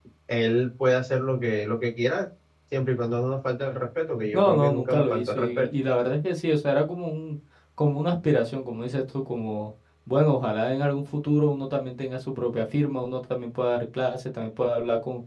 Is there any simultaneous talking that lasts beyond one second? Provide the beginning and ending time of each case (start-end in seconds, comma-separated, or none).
4.3-5.7